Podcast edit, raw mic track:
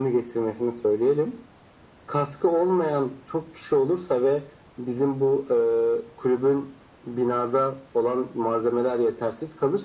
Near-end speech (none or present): none